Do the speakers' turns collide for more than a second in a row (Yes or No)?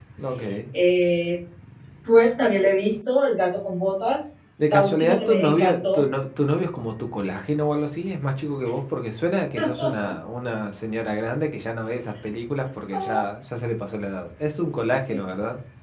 Yes